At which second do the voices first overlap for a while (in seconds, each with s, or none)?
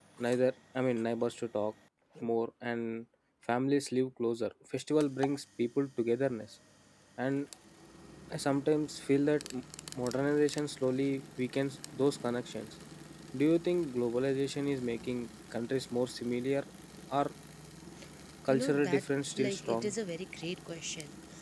18.5 s